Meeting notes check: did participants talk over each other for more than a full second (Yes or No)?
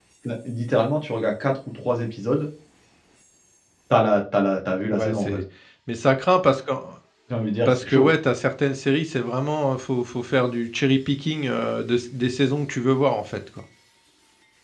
No